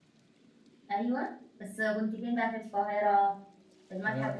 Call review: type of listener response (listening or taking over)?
taking over